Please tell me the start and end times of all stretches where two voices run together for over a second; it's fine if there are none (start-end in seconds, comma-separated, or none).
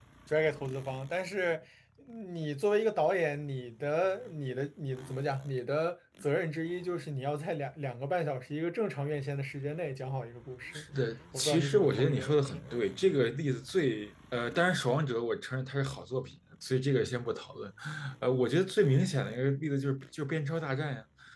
11.4-12.6